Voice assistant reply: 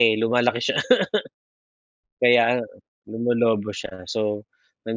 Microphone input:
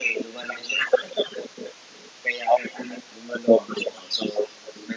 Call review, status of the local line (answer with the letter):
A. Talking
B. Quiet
B